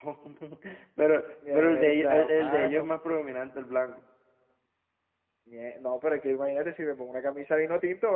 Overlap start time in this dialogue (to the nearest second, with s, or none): 2 s